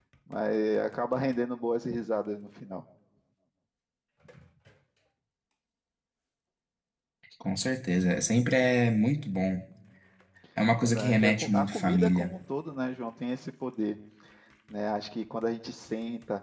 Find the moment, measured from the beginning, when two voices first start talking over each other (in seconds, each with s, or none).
10.8 s